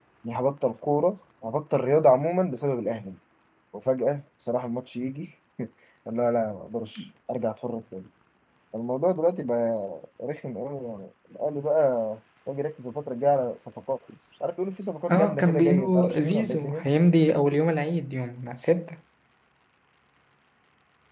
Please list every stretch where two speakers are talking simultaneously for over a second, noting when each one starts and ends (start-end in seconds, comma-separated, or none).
15.1-16.9